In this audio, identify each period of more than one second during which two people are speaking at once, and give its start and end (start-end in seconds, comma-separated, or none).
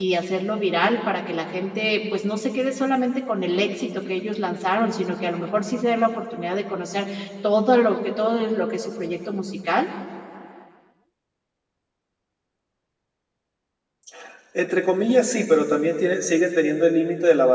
none